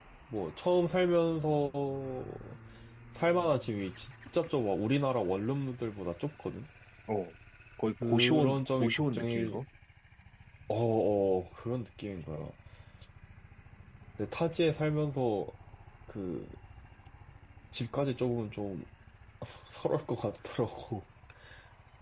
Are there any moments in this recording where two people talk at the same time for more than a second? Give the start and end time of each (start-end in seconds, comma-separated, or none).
8.0-9.6